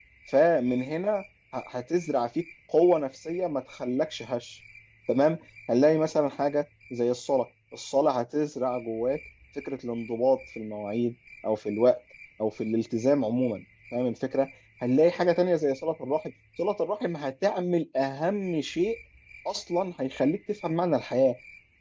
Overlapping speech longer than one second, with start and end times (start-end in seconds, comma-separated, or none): none